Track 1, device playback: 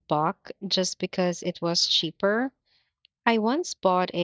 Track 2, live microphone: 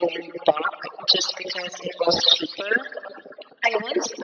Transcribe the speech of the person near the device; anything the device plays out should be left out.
none

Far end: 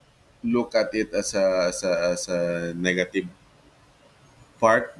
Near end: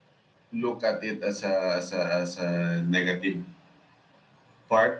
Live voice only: none

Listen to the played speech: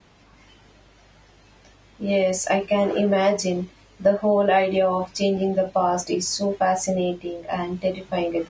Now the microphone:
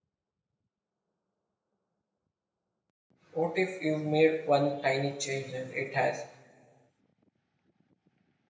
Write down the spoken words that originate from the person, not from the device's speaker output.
What if you made one tiny change and it has

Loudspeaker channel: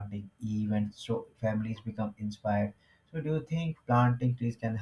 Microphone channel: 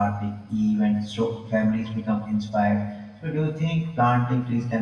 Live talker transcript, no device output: none

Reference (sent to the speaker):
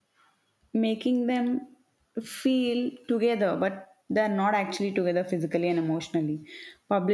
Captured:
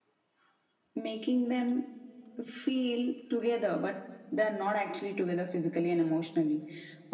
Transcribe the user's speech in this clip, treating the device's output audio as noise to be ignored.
none

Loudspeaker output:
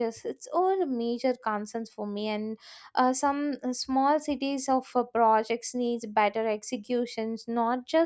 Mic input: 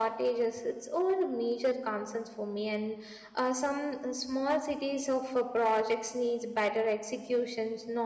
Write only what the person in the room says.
none

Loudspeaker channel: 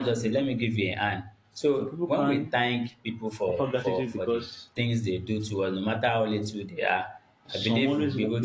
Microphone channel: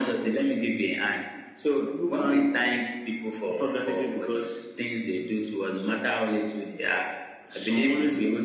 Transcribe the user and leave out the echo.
none

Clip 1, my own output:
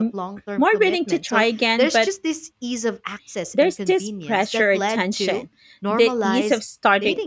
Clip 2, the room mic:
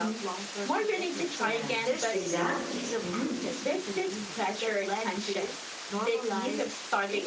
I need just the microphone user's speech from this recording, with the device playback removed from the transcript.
Yes, exactly. Mhm.

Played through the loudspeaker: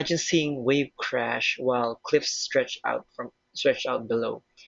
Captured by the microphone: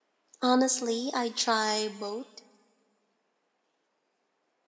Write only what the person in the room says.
Honestly, i try both

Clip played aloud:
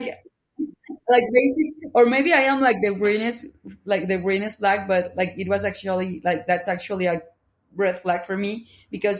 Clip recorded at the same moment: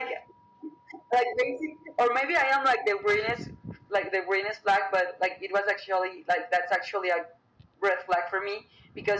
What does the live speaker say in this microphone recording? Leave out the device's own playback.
none

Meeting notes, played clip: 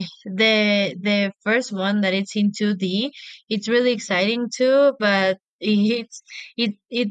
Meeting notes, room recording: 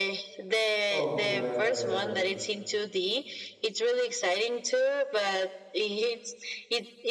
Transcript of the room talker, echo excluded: of the

